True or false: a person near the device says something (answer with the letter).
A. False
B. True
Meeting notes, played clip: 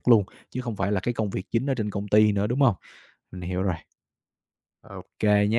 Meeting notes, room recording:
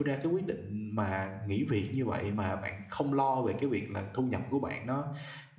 B